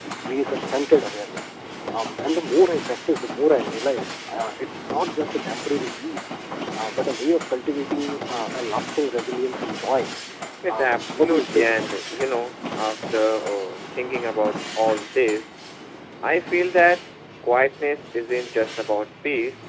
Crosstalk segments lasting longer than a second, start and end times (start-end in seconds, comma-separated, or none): 10.7-11.9